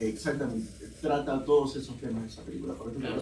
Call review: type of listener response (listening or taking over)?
taking over